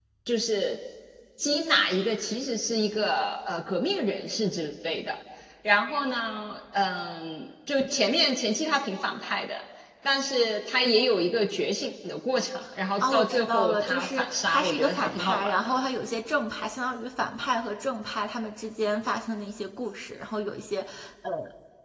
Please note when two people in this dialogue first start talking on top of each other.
13.0 s

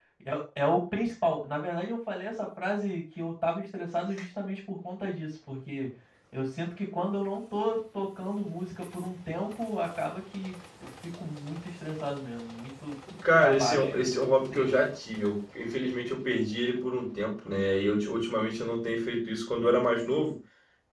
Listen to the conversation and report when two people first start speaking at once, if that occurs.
13.2 s

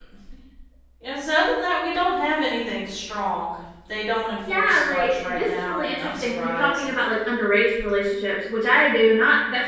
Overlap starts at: 4.5 s

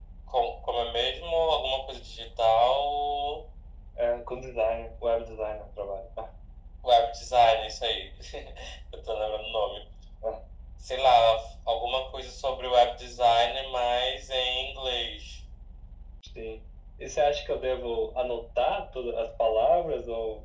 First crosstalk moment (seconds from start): none

